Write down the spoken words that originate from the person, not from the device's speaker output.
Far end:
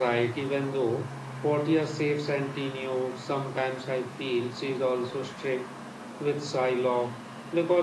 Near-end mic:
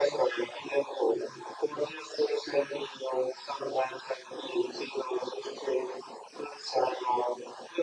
none

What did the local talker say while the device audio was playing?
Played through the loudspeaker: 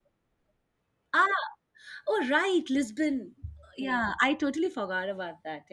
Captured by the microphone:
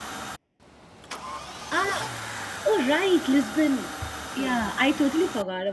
none

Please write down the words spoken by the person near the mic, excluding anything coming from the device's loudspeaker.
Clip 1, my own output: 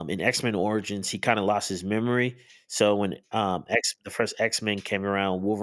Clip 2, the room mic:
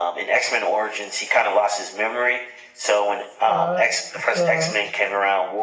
Uh, it's uh,

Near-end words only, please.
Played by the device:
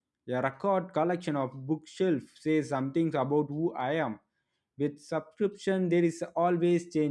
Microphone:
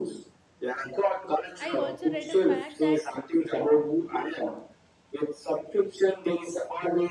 I also read a fact that

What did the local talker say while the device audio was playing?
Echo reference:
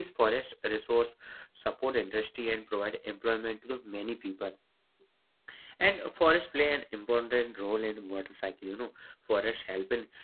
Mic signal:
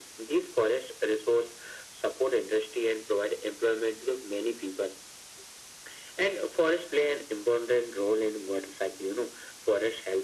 none

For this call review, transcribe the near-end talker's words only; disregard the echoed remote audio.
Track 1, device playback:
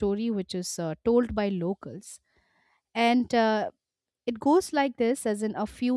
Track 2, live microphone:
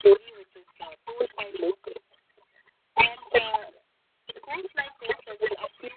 none

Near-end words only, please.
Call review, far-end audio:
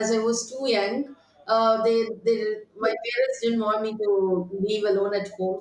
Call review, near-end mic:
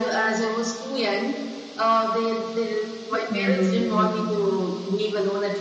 Mhm.

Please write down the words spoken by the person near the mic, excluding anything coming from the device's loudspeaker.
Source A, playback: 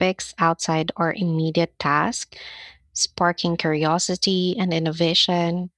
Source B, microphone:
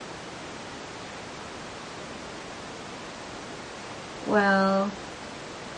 Well,

